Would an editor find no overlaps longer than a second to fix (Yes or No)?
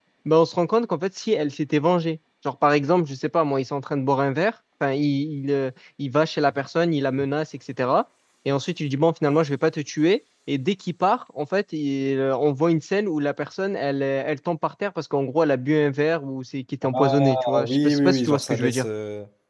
No